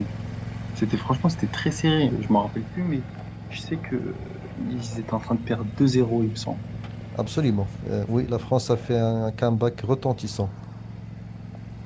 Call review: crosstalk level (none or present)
none